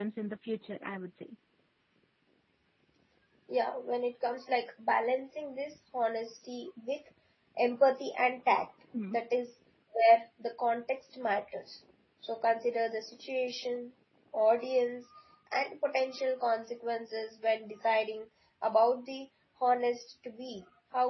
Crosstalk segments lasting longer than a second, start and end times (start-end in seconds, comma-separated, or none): none